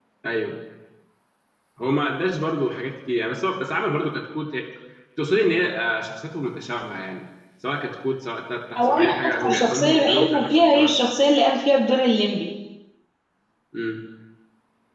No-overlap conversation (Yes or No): No